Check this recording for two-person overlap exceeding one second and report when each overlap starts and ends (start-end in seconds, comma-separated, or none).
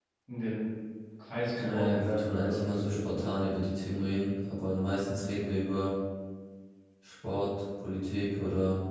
1.6-3.3